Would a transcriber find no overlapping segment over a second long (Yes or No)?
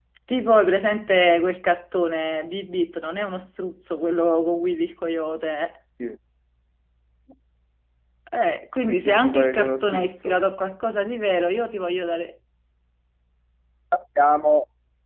No